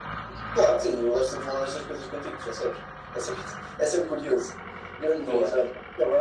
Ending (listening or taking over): listening